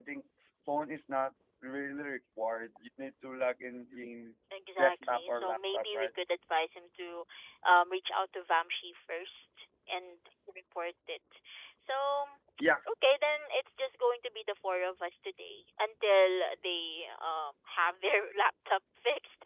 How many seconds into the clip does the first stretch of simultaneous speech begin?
4.8 s

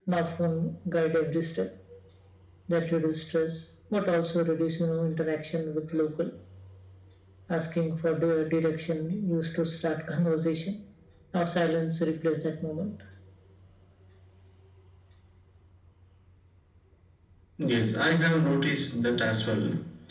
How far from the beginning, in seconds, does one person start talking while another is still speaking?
none

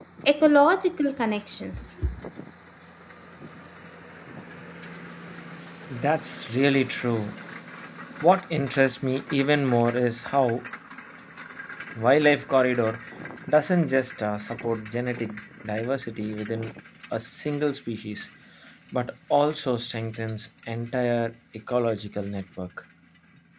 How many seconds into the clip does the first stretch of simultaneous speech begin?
none

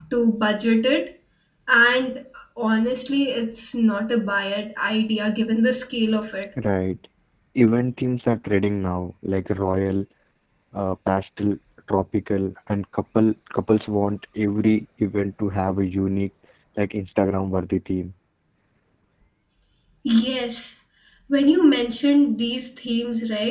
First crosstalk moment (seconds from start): none

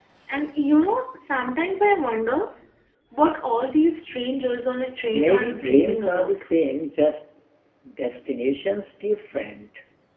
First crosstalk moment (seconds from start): 5.1 s

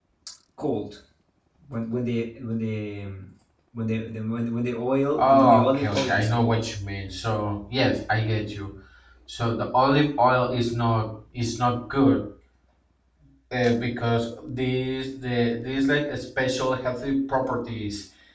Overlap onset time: 5.2 s

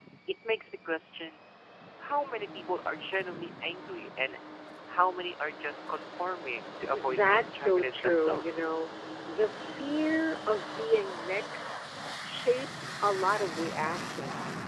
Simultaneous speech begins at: 6.9 s

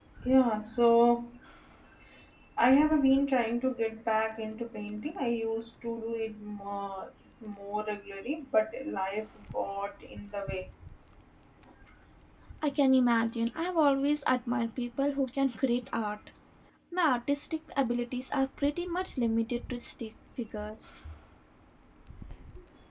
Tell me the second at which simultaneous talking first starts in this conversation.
none

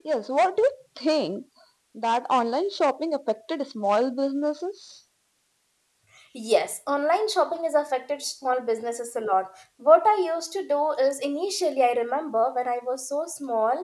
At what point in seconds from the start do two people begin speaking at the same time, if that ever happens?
none

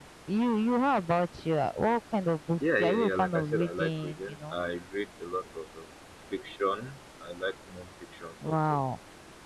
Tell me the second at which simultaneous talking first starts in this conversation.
2.8 s

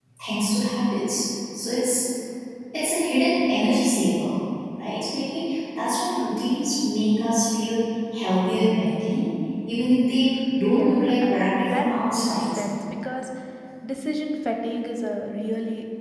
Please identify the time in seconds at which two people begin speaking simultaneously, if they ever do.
10.7 s

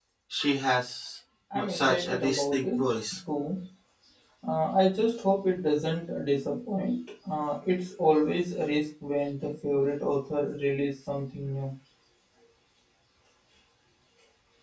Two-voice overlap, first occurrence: 1.5 s

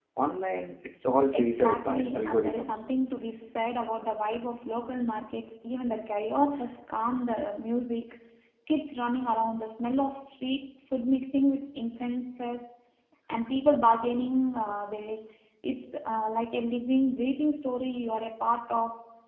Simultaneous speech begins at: 1.3 s

